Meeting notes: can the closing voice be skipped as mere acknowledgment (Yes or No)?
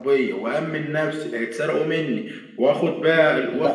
No